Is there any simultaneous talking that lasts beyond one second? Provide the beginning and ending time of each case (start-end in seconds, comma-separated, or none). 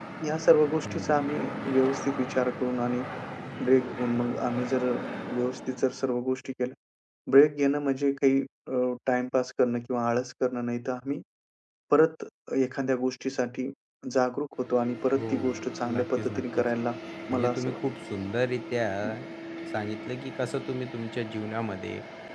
15.2-16.7